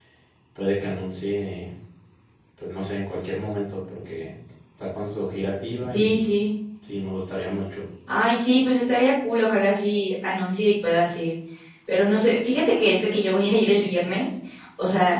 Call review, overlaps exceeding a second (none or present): none